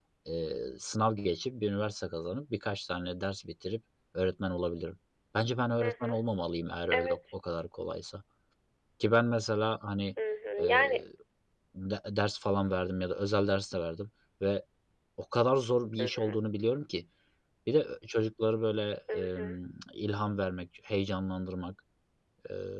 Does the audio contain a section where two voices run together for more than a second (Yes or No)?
No